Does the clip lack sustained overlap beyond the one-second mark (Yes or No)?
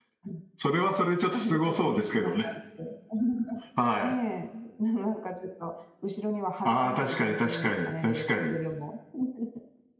No